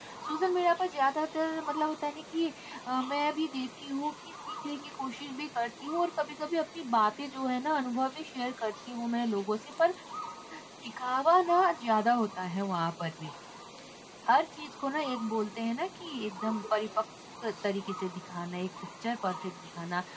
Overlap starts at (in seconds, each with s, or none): none